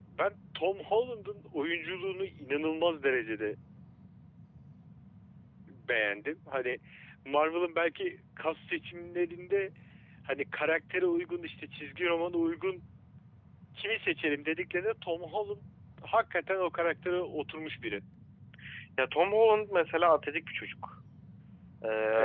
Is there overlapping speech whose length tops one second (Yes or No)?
No